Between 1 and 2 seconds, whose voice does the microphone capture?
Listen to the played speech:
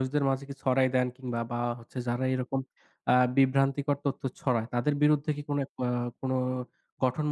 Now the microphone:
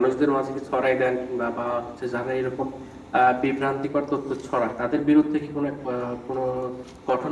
echo only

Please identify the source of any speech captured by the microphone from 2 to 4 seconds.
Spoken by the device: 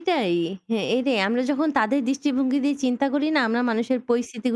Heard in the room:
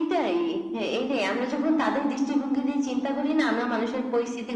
echo only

